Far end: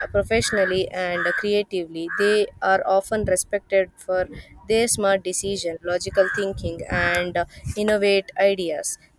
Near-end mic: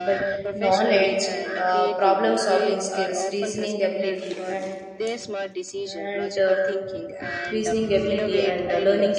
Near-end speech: present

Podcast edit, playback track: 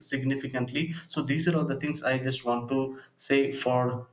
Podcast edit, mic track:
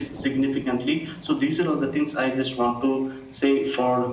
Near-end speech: none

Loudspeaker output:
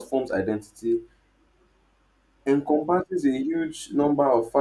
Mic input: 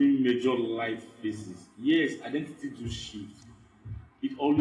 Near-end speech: present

